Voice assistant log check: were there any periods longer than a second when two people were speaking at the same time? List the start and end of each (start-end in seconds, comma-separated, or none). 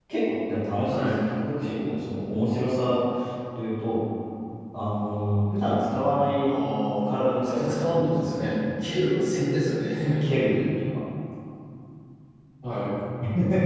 7.0-8.6